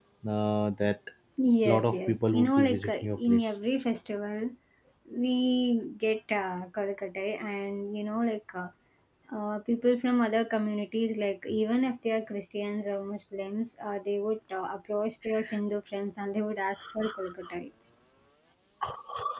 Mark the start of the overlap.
2 s

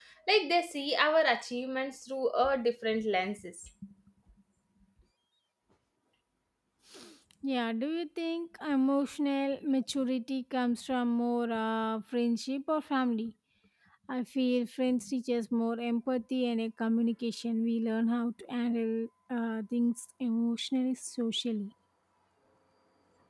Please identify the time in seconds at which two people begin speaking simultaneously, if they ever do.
none

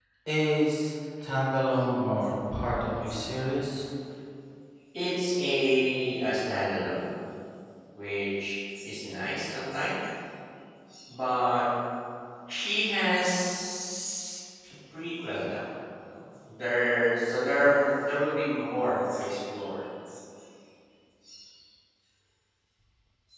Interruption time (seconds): none

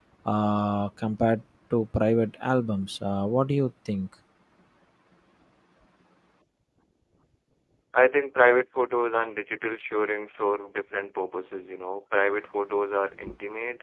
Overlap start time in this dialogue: none

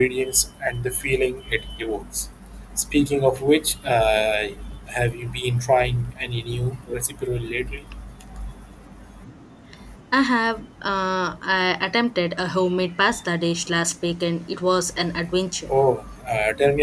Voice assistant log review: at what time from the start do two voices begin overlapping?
none

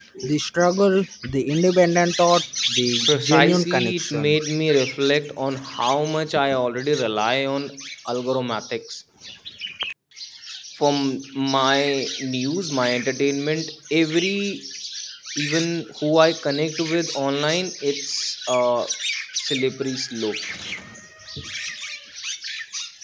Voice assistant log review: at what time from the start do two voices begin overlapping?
3 s

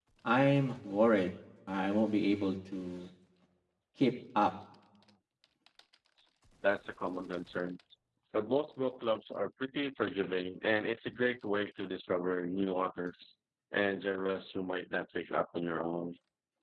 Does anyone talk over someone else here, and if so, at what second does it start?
none

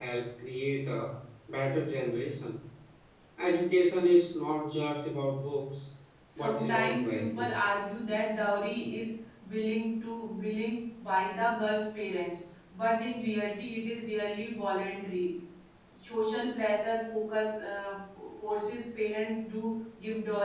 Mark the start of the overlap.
6 s

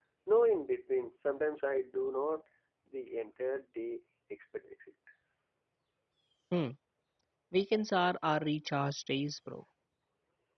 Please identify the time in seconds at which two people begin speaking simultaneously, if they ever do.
none

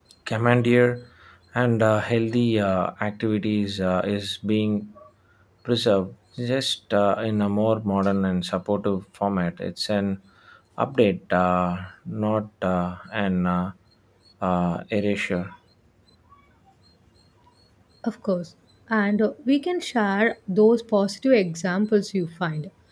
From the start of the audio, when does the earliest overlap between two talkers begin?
none

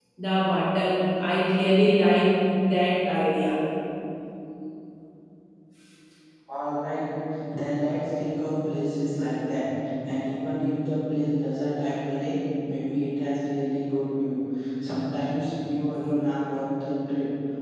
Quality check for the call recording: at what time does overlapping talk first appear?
none

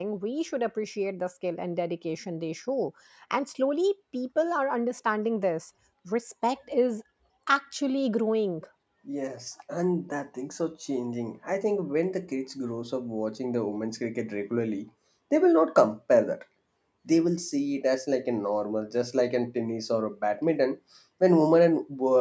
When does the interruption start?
none

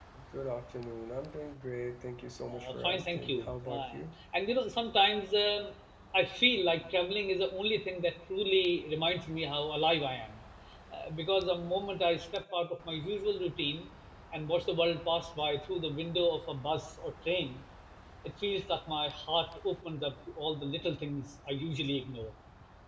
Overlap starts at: 3 s

